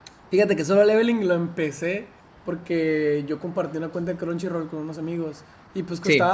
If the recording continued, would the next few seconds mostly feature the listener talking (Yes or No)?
No